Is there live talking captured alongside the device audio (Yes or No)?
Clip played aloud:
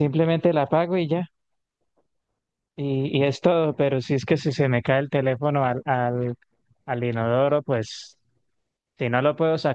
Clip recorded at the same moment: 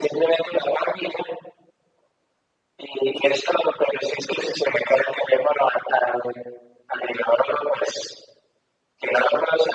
No